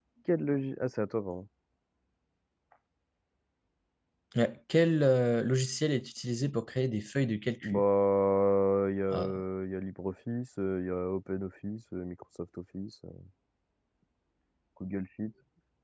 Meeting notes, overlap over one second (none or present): none